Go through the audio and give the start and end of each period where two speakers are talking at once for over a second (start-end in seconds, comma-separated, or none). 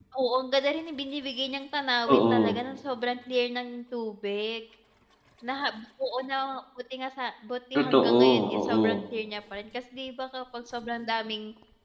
7.8-9.0